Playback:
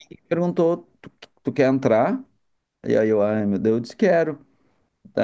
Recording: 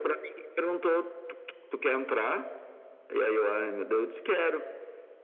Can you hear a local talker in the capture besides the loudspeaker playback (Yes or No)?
No